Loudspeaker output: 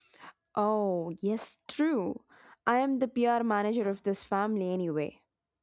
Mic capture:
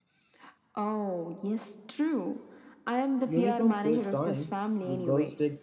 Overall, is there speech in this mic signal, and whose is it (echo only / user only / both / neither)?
both